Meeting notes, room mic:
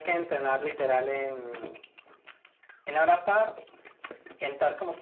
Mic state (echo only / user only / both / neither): echo only